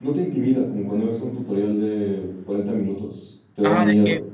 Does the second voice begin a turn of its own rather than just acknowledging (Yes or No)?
Yes